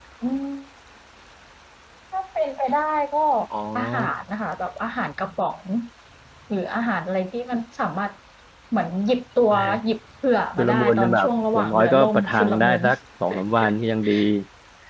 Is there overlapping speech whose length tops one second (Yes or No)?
Yes